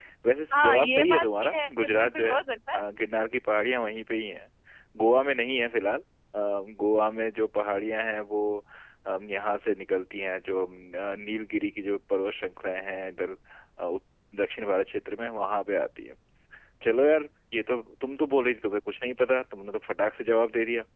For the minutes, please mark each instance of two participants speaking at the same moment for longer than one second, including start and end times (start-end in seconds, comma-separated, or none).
0.5-2.4